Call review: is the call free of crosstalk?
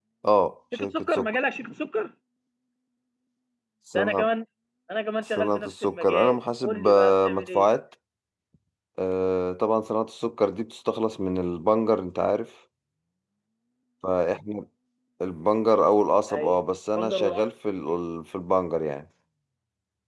No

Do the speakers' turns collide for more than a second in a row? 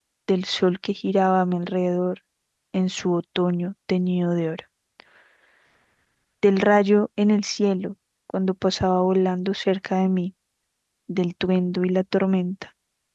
No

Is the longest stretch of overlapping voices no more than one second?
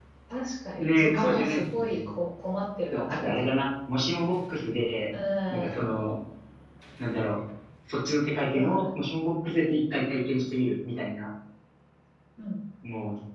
No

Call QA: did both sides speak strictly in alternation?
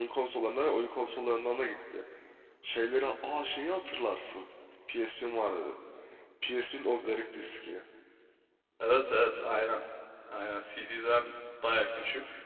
Yes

